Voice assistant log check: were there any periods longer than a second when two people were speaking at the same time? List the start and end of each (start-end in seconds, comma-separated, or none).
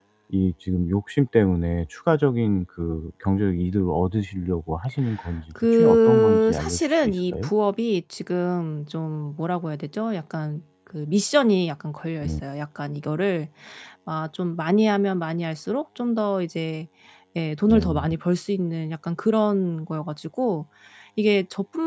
5.7-7.5